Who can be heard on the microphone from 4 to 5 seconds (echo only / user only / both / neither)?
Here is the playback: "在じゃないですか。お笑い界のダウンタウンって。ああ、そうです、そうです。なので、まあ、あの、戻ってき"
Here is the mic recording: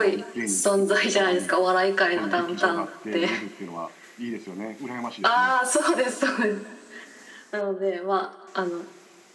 user only